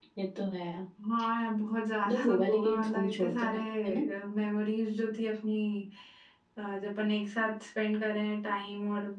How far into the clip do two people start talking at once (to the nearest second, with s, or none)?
2 s